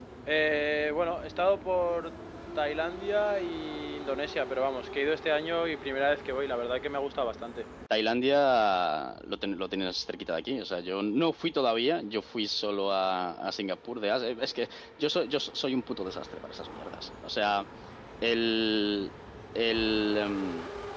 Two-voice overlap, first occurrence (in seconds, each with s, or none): none